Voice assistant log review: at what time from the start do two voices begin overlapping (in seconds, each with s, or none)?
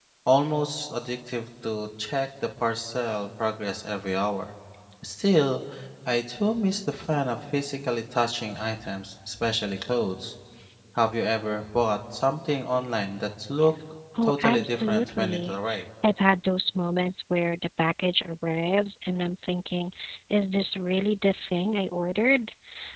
14.1 s